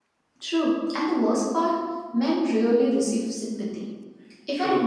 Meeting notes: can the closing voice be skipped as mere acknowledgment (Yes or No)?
Yes